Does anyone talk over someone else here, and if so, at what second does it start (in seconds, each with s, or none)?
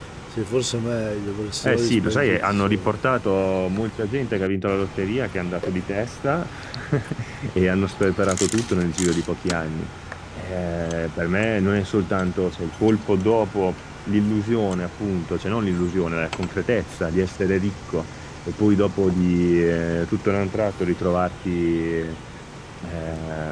1.6 s